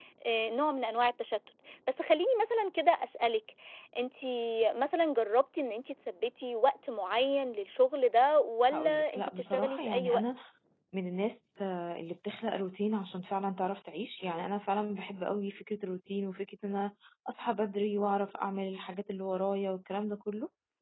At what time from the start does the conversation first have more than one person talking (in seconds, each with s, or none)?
8.7 s